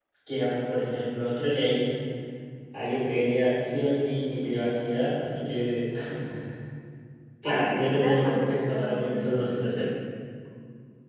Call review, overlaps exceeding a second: present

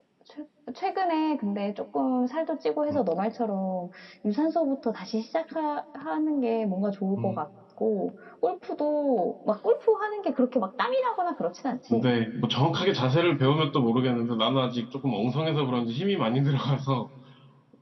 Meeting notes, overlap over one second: none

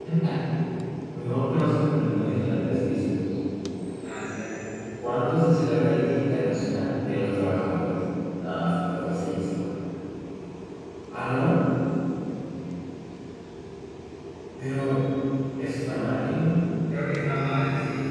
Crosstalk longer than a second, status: none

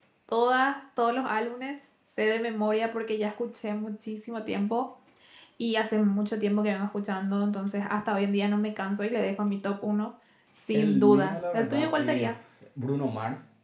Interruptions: present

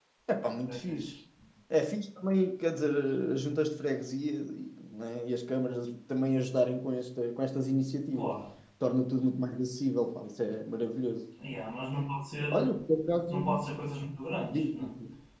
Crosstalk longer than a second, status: none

